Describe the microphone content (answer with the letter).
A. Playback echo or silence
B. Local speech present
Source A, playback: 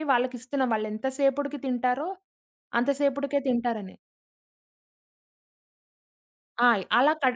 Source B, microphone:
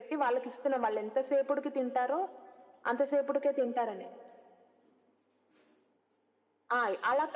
A